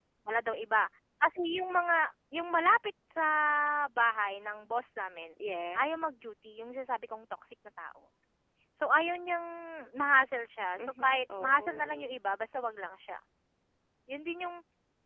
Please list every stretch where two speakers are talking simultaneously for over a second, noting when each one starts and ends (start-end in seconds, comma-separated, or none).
10.8-12.1